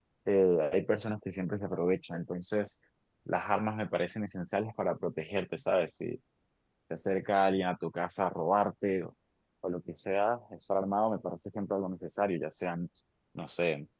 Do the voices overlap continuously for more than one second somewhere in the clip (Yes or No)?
No